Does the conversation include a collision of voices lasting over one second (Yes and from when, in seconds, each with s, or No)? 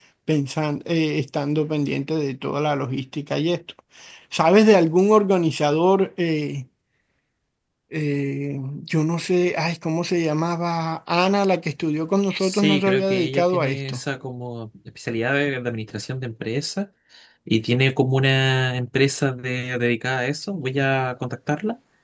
Yes, from 12.4 s